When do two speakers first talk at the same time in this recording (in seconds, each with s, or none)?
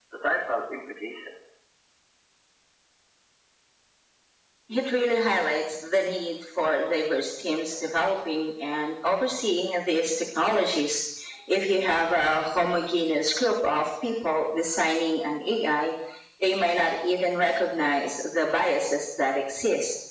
none